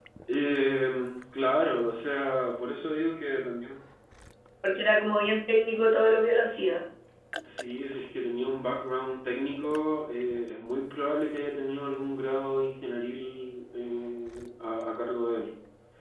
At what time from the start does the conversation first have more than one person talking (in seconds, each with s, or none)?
none